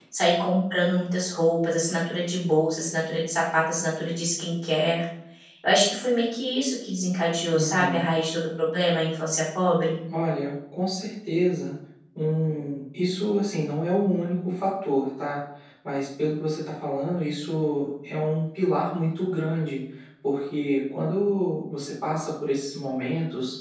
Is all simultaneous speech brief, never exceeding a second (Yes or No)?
Yes